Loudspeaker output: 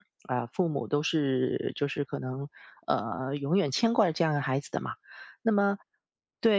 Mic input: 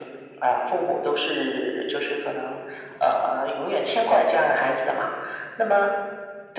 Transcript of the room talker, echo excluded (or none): none